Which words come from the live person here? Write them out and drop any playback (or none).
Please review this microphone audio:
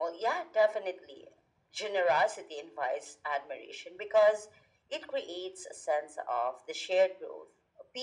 none